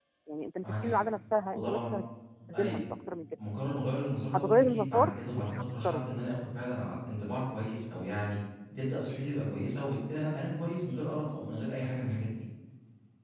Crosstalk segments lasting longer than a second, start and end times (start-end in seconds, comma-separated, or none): 4.3-6.0